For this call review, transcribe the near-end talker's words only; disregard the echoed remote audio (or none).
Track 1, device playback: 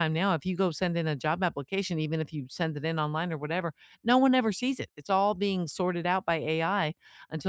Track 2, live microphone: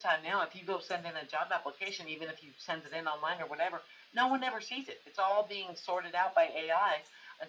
none